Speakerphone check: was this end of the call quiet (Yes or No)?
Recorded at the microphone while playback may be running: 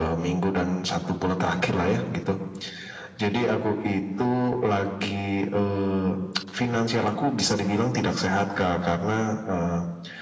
Yes